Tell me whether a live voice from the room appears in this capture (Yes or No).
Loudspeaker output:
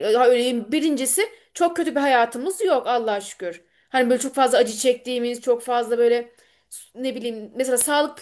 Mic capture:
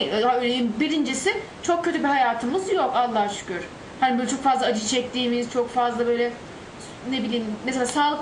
No